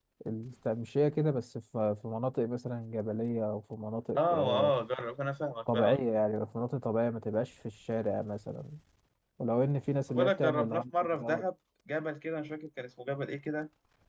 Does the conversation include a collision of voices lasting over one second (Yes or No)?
Yes